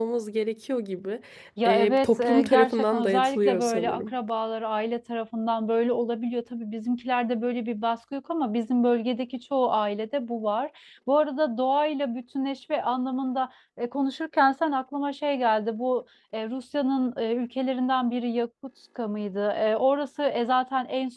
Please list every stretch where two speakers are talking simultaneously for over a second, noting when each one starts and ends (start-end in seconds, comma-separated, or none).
1.6-4.1